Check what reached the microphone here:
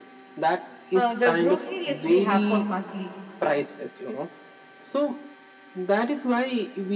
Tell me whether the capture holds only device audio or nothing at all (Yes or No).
No